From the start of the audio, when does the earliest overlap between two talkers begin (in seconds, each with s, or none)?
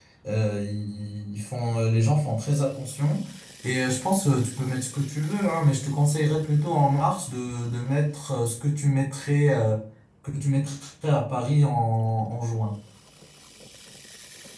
none